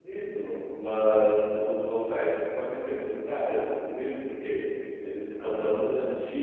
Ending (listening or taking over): listening